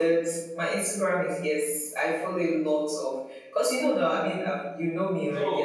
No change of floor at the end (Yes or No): No